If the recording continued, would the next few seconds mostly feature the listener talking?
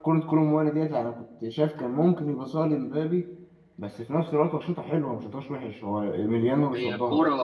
Yes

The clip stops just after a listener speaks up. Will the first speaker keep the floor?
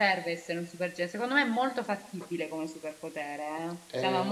No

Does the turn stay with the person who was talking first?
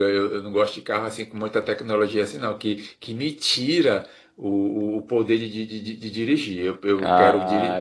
No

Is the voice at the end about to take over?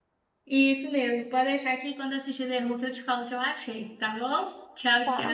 Yes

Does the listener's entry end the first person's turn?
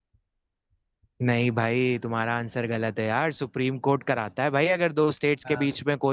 No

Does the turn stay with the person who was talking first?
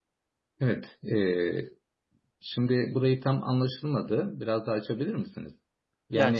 No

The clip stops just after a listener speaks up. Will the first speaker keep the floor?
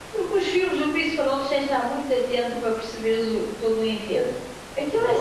Yes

